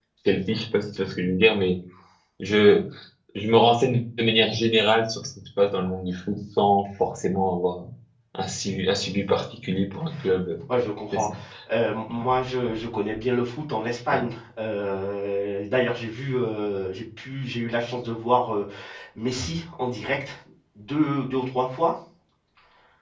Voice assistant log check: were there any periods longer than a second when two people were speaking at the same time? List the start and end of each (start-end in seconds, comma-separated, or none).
none